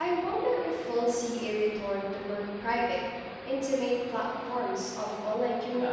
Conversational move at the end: taking over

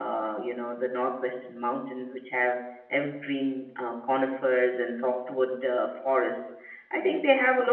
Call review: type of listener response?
listening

